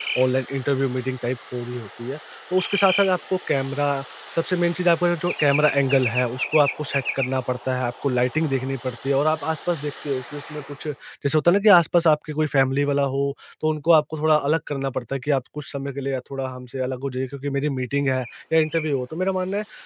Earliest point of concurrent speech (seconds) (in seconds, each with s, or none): none